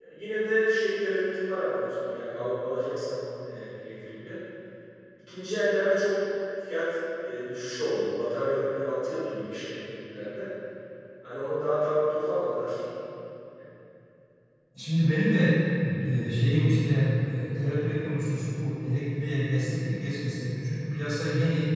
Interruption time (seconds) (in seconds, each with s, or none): none